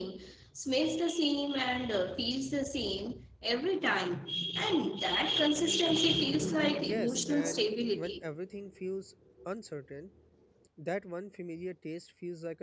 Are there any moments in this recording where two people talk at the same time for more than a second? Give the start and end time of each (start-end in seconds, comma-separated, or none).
6.8-8.3